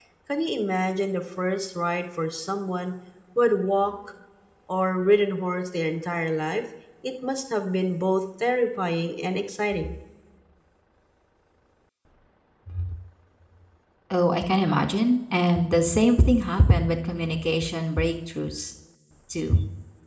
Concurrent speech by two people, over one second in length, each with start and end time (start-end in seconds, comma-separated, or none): none